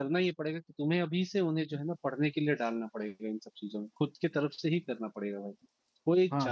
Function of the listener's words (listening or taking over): taking over